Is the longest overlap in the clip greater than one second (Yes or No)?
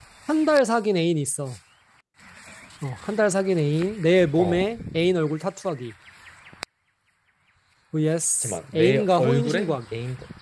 Yes